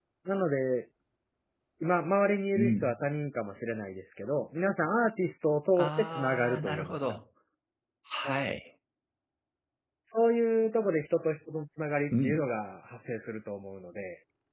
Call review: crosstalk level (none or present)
present